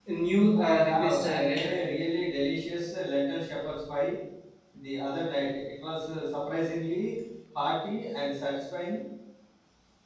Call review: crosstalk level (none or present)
present